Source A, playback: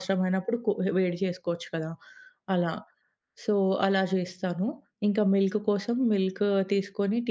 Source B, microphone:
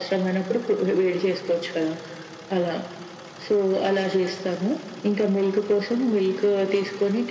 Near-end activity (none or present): none